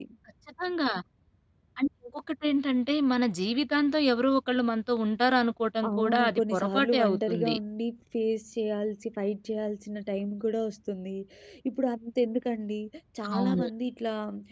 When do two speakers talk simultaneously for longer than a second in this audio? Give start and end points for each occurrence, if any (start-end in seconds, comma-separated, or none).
5.9-7.5